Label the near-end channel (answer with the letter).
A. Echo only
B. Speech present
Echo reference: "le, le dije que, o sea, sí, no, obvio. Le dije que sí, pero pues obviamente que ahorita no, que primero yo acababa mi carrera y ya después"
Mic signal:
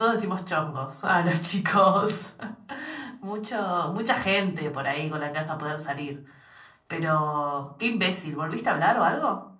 B